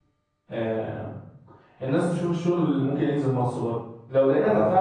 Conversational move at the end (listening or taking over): listening